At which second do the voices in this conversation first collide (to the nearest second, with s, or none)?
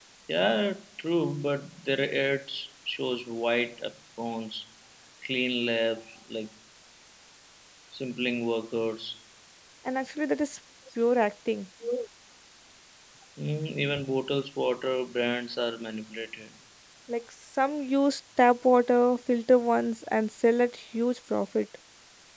none